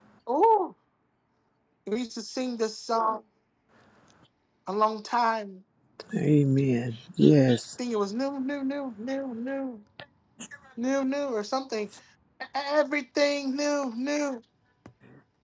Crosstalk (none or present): none